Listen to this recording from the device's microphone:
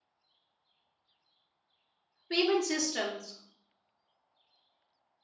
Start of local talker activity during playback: 2.3 s

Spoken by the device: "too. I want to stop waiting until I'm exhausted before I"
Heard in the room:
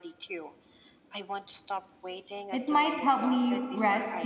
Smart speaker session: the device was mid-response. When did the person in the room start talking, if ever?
2.5 s

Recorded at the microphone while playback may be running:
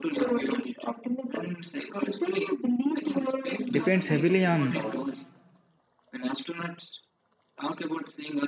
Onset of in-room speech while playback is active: 3.7 s

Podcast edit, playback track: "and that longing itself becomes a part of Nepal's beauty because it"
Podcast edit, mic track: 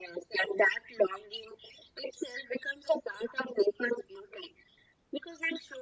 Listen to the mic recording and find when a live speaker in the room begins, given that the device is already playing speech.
none

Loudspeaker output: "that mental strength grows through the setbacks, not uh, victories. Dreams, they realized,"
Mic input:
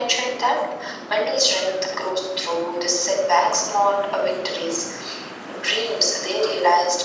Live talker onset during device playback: none

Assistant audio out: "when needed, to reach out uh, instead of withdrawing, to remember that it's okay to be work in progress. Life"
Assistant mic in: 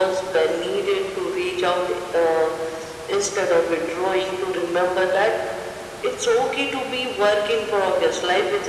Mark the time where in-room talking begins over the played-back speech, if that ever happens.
none

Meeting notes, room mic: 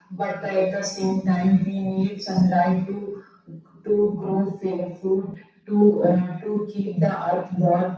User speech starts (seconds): none

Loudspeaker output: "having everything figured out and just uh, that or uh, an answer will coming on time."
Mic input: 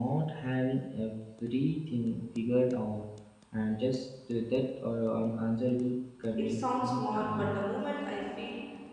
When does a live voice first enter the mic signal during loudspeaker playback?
6.3 s

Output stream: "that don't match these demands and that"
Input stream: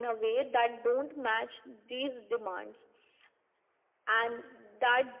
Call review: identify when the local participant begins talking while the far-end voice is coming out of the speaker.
none

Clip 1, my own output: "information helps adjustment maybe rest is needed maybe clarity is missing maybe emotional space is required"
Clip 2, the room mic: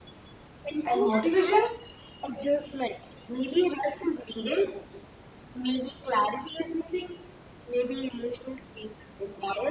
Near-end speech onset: 0.8 s

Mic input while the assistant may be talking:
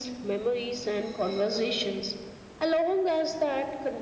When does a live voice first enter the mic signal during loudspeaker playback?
none

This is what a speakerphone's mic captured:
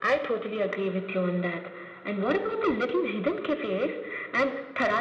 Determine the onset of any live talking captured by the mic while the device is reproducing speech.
none

